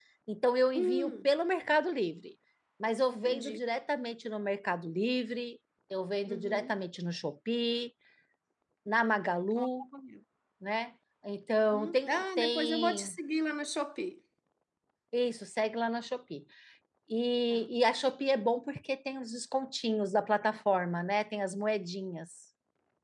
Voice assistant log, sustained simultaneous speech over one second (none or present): present